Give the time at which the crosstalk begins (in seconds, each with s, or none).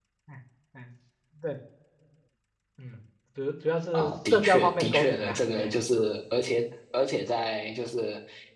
3.9 s